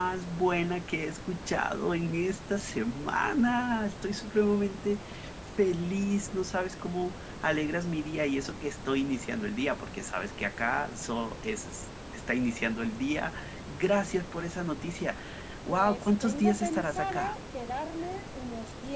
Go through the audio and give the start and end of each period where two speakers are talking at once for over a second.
15.7-17.3

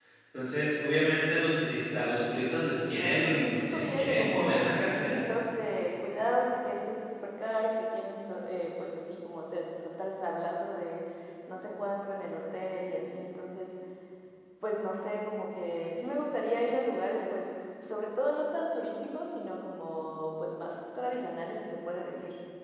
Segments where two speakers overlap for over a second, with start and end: 2.9-5.2

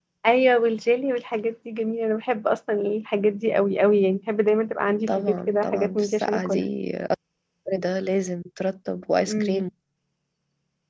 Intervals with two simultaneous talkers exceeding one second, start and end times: 5.1-6.6

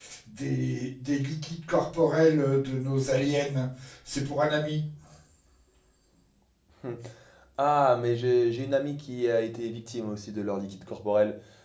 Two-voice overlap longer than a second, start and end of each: none

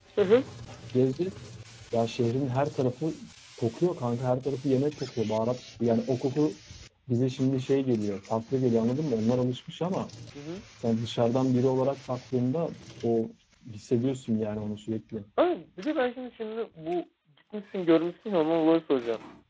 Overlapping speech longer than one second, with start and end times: none

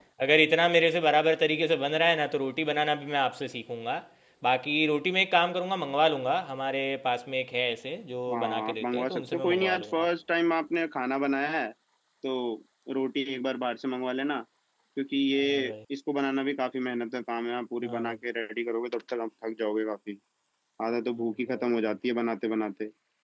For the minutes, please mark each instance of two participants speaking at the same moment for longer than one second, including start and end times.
8.3-10.1

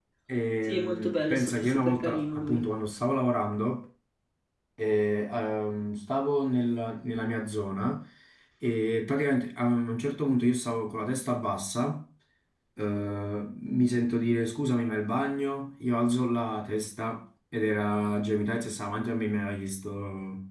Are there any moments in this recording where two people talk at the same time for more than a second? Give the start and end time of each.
0.6-2.6

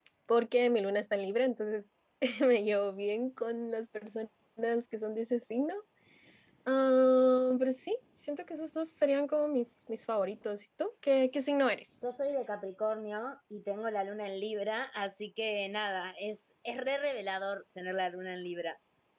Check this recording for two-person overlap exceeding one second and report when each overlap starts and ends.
none

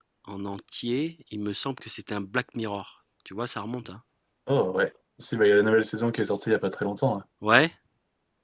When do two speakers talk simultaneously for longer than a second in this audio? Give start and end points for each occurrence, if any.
none

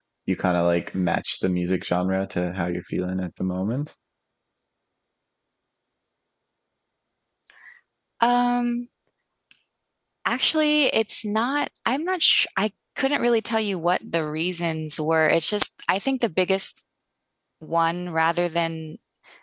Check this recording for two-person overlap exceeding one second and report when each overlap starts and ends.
none

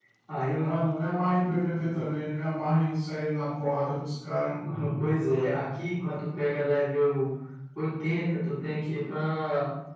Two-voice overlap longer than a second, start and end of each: none

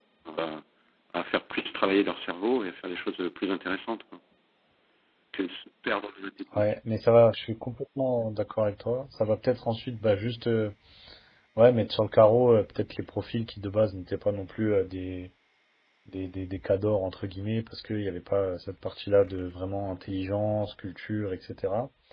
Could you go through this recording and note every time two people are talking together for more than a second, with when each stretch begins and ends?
none

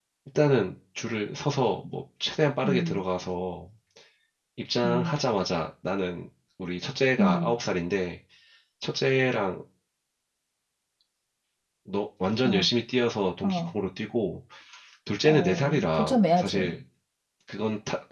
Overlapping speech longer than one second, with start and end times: 15.2-16.8

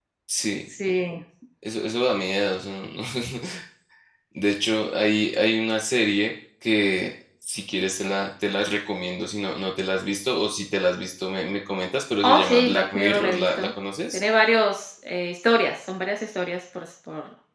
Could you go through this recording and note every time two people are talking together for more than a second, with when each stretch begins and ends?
12.2-13.7

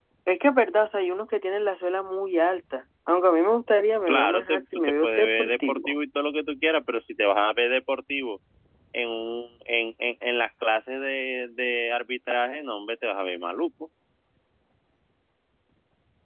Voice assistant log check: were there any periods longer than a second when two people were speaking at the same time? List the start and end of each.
4.1-5.9

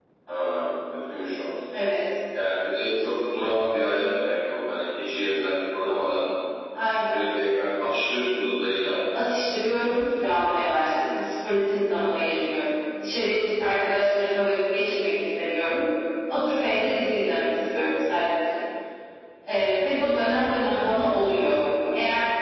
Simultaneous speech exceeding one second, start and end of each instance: none

